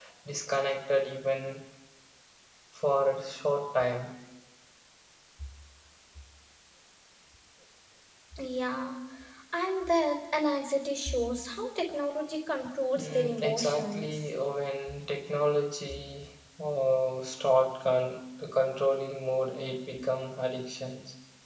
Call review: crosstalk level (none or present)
present